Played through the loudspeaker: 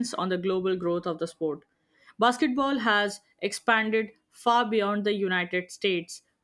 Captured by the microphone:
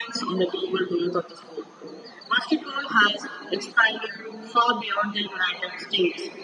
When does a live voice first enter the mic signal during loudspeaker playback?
none

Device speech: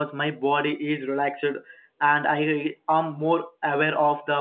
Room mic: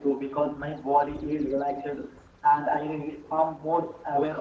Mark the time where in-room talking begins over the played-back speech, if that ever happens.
none

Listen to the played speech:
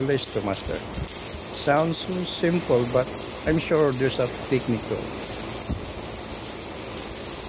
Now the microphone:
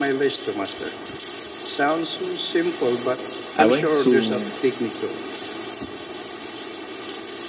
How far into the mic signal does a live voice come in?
3.5 s

